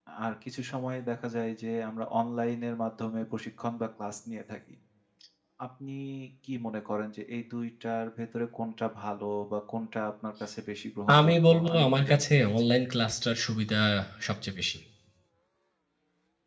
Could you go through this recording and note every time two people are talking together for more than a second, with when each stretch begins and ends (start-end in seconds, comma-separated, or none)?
11.2-12.7